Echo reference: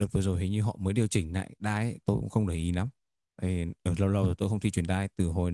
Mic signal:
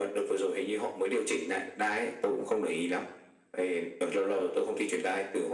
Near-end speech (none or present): none